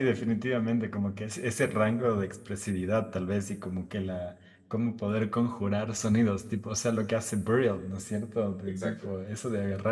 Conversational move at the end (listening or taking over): listening